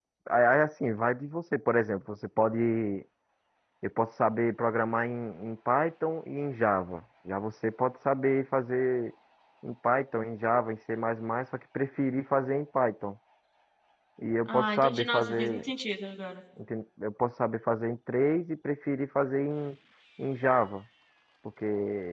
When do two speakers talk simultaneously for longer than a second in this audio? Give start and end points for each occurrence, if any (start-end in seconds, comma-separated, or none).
14.4-15.7